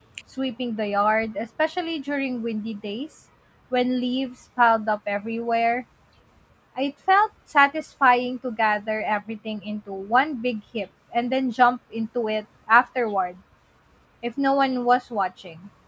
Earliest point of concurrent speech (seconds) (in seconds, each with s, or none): none